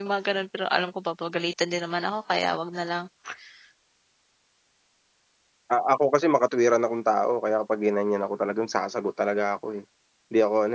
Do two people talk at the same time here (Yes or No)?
No